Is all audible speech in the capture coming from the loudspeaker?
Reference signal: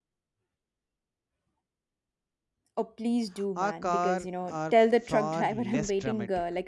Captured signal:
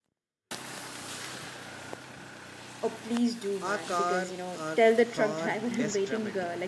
Yes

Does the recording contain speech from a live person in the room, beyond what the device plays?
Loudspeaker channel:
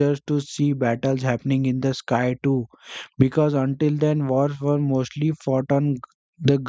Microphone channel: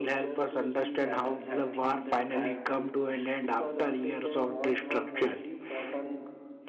Yes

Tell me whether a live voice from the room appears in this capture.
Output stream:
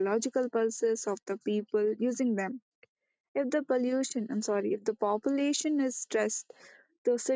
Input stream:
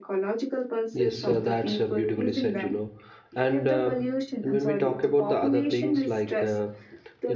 Yes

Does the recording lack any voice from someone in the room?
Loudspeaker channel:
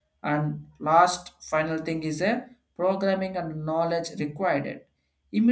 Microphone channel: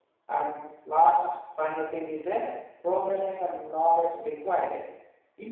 Yes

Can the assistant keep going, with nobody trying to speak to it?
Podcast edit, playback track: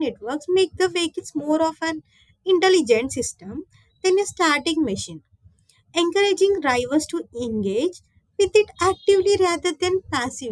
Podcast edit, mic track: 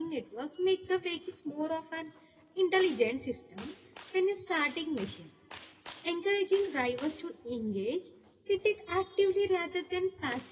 Yes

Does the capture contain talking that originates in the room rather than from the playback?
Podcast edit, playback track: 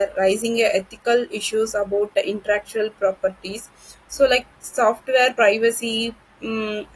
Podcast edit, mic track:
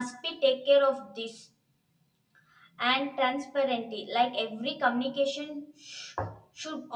Yes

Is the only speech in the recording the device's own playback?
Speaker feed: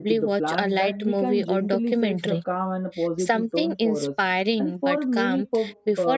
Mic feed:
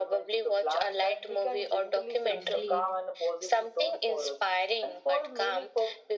No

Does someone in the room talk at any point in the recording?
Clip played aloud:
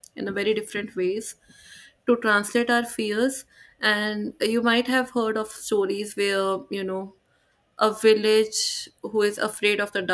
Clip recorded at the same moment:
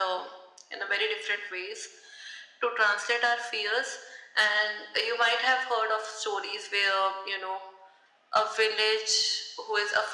No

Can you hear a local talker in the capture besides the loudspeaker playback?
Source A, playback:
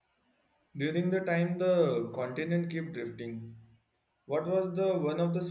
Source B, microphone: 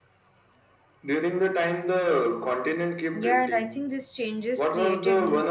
Yes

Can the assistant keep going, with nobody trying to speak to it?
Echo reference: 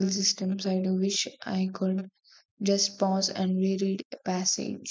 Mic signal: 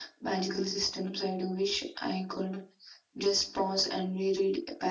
Yes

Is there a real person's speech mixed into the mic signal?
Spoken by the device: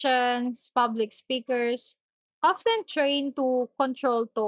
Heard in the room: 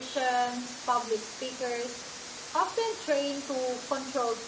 No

